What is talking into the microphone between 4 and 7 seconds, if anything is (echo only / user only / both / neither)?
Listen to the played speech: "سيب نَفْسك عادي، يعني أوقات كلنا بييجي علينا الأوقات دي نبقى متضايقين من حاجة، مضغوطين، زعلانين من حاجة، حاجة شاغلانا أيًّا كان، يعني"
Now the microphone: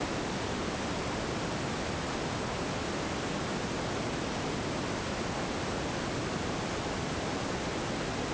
neither